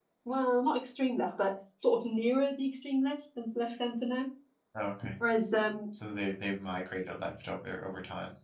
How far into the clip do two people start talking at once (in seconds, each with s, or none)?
none